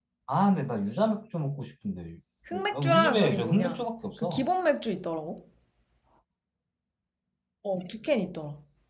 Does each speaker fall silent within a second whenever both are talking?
No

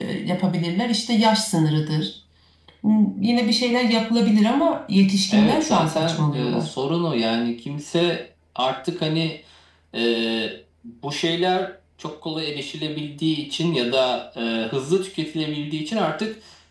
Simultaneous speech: Yes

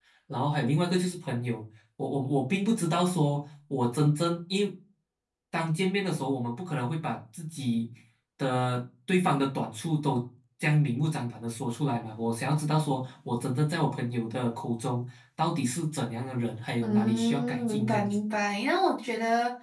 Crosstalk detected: Yes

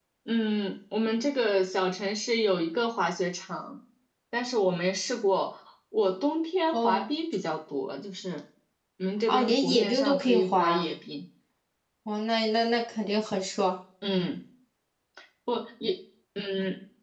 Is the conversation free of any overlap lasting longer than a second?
No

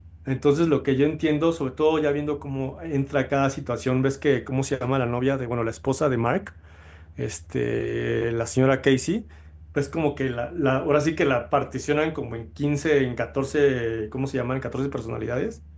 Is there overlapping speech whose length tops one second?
No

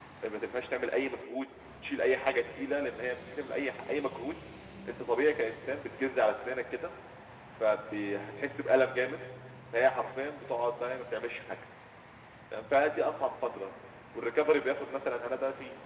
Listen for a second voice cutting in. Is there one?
No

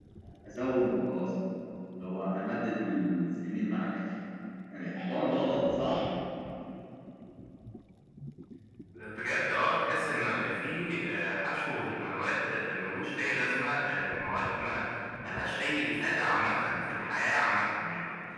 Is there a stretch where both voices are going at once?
No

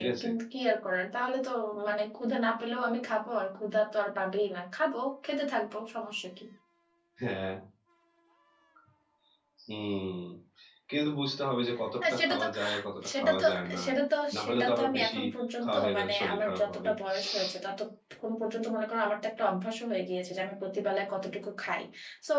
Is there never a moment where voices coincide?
No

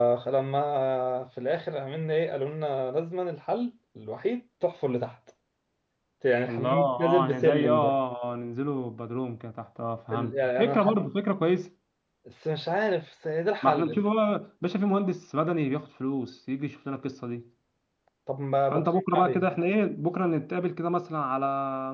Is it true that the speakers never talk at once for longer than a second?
No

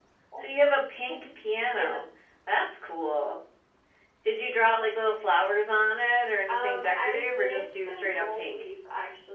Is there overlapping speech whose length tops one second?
Yes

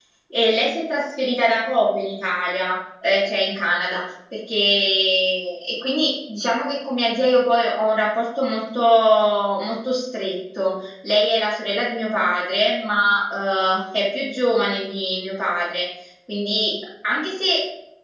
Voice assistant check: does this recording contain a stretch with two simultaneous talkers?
No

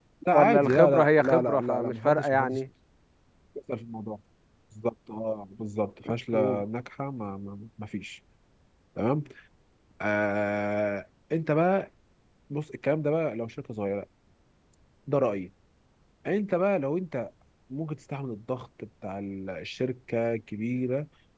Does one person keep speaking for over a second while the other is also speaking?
Yes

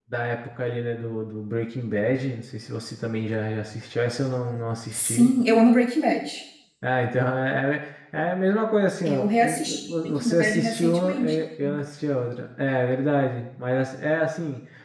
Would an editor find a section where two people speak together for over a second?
Yes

